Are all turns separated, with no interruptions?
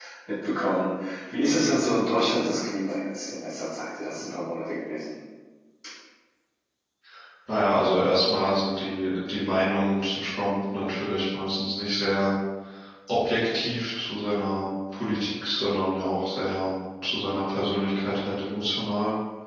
Yes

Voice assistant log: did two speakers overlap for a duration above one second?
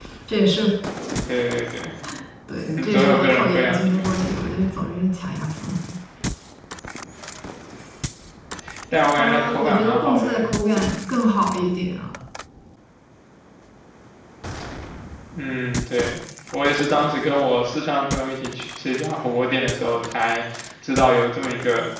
Yes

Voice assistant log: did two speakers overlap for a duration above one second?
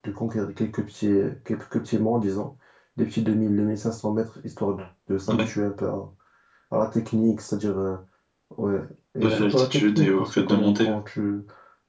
Yes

